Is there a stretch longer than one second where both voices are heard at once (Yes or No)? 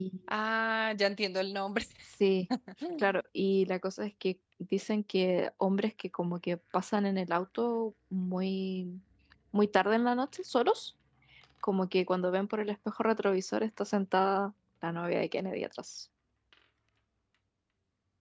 No